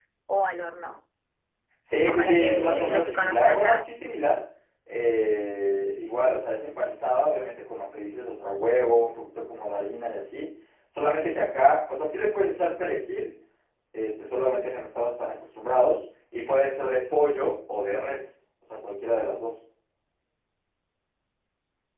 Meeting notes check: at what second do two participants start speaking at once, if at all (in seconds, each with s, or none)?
1.9 s